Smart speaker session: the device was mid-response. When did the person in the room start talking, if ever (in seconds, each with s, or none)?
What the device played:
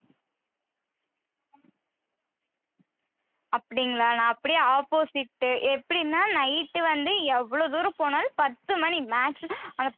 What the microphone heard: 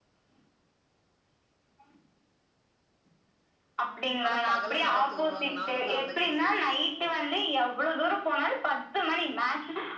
4.2 s